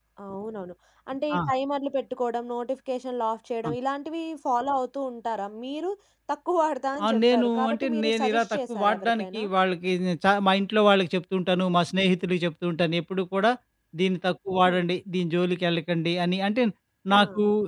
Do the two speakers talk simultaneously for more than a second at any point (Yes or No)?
Yes